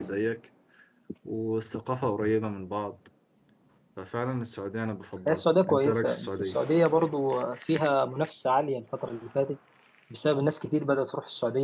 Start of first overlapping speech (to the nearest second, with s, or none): 5 s